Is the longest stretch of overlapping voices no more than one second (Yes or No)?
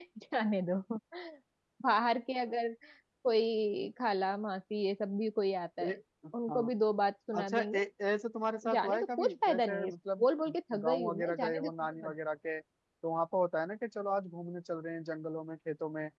No